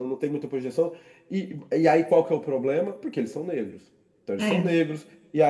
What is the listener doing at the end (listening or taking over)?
listening